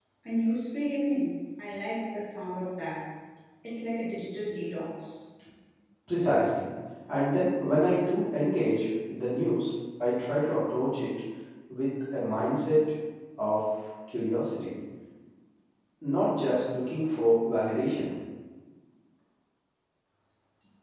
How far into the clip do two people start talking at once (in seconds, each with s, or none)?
none